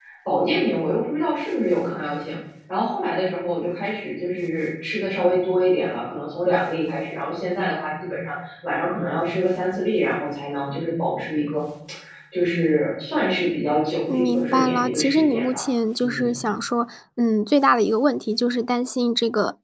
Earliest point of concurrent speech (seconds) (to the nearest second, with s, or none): 14 s